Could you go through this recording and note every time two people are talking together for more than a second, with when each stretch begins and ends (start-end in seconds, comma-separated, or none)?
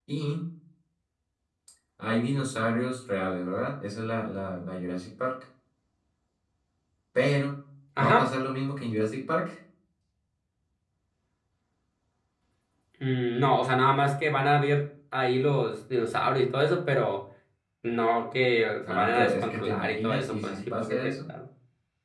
18.9-21.3